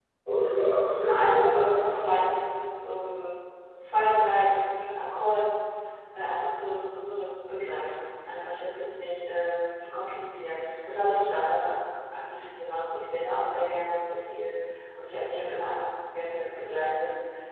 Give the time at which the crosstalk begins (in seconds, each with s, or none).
0.8 s